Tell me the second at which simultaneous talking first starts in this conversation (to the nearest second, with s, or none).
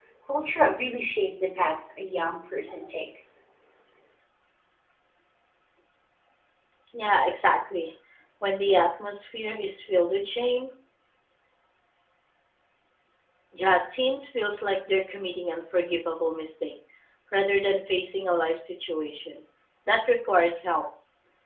none